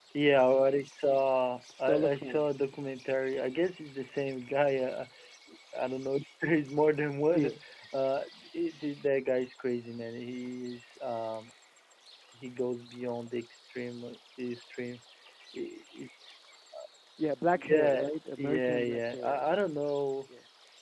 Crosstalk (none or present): present